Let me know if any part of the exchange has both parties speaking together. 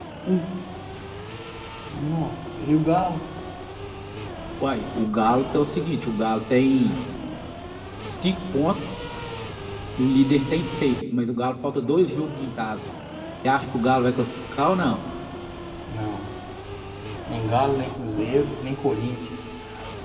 No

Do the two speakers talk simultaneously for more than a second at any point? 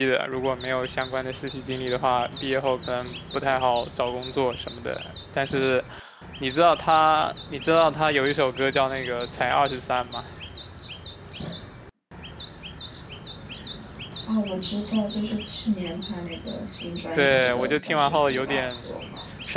Yes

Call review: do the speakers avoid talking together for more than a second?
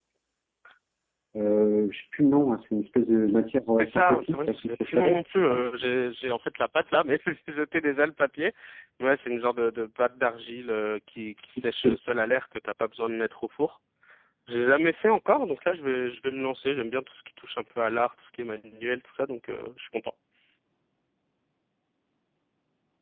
No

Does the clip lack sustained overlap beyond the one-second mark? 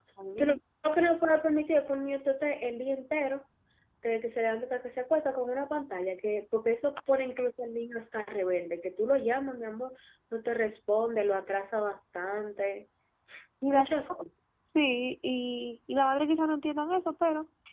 Yes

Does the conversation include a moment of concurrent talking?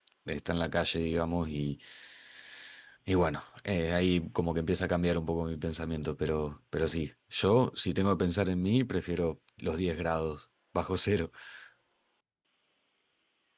No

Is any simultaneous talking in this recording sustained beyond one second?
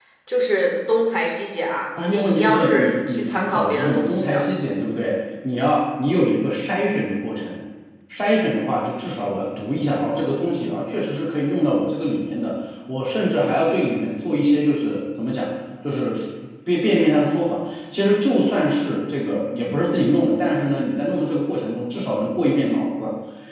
Yes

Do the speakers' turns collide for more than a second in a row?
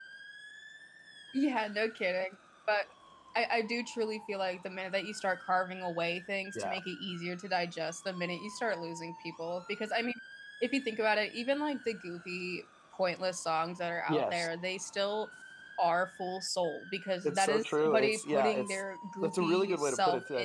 Yes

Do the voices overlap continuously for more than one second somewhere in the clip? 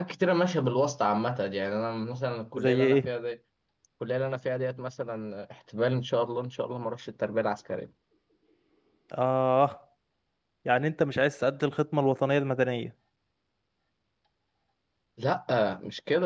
No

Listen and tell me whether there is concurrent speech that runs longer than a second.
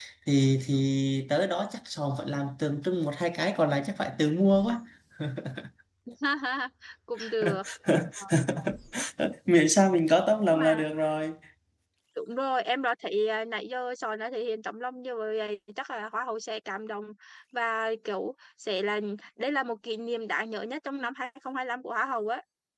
No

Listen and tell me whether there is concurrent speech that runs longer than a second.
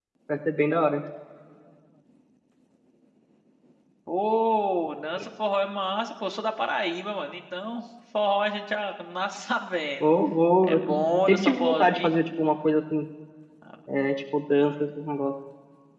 Yes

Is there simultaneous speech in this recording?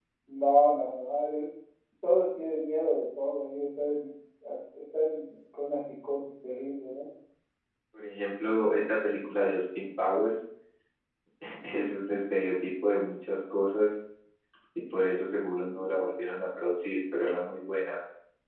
No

